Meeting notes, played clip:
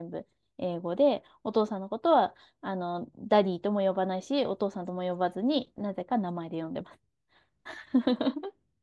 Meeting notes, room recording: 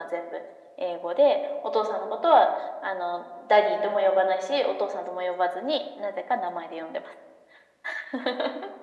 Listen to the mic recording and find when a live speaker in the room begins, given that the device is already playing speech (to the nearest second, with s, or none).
none